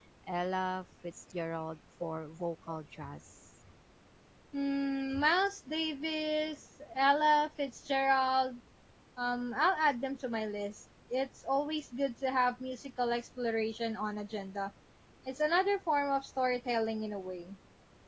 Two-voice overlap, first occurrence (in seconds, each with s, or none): none